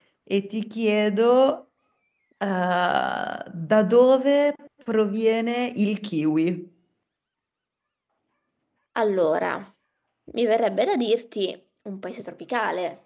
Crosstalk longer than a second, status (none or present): none